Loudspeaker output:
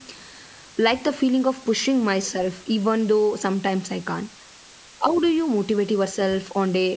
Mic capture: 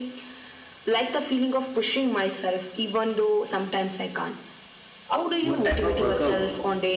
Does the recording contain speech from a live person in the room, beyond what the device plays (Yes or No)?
Yes